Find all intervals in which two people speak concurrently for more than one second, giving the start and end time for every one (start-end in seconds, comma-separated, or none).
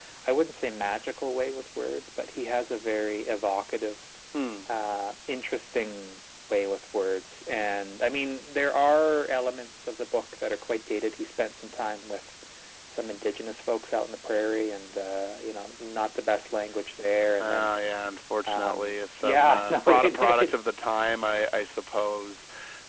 18.5-20.5